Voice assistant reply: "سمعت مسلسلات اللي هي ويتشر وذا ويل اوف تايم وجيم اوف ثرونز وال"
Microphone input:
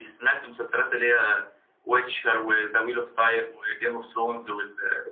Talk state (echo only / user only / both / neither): echo only